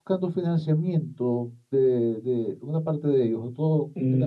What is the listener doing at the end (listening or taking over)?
taking over